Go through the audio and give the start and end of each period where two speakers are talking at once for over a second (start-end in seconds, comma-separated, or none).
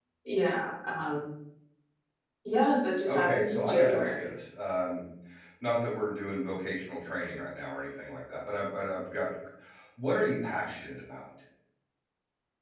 3.0-4.3